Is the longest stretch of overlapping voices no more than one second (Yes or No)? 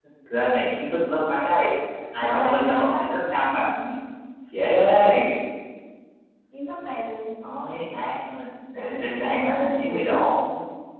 No